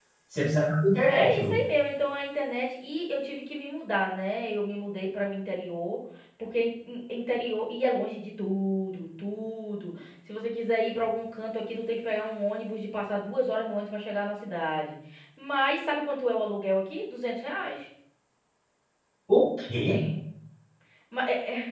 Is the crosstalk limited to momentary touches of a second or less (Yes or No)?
Yes